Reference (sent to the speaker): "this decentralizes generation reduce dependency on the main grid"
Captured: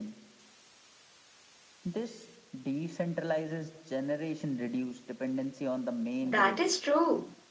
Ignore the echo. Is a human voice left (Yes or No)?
Yes